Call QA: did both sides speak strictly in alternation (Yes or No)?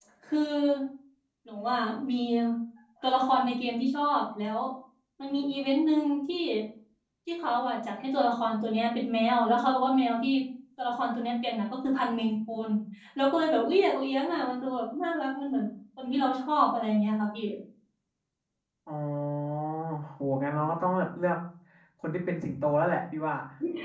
Yes